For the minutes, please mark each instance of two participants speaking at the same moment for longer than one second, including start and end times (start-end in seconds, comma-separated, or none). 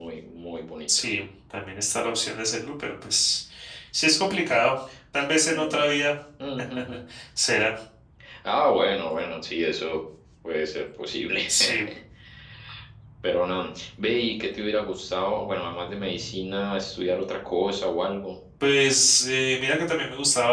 none